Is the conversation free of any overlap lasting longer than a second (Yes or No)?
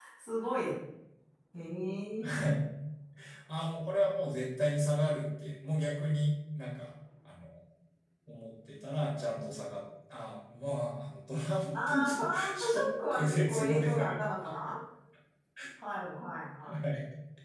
No